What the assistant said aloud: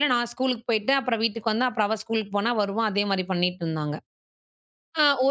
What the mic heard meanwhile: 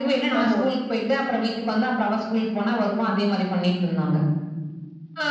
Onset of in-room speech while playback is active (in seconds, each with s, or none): 0.3 s